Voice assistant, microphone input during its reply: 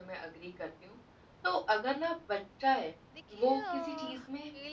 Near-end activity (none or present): present